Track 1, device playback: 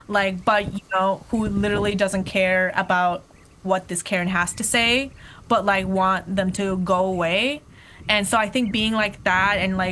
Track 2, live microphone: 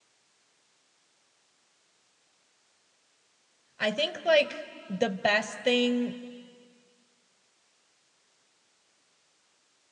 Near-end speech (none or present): present